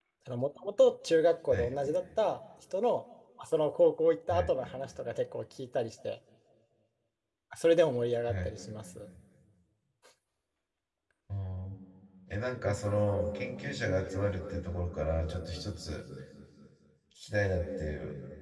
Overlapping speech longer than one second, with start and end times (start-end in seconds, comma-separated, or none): none